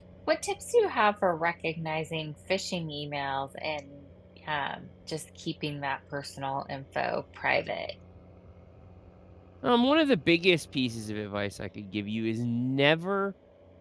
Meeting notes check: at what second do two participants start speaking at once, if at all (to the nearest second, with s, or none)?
none